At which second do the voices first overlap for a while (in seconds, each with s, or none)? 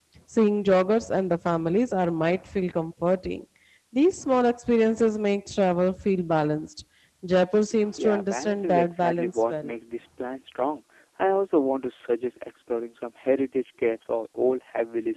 8.0 s